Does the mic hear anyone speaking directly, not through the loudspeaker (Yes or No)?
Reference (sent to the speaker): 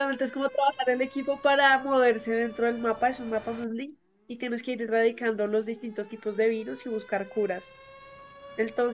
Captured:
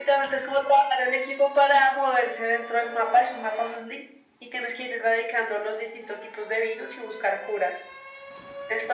No